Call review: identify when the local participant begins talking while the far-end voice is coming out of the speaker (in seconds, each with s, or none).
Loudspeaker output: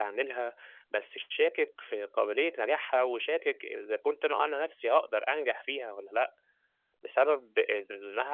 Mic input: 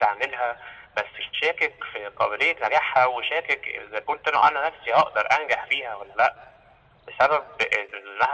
none